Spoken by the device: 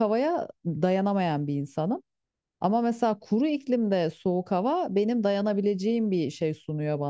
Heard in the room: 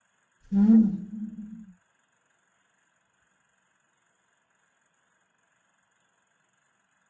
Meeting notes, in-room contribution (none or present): present